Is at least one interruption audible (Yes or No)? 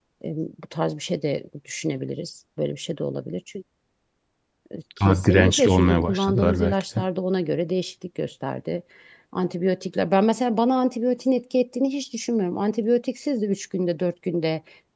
Yes